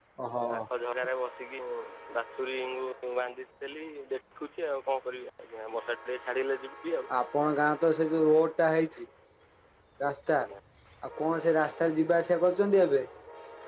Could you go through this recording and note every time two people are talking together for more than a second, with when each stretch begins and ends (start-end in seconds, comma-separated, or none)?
none